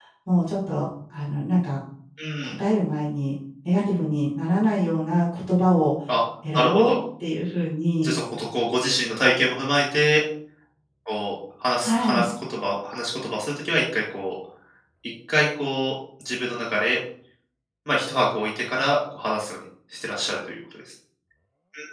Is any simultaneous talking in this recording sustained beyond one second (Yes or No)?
No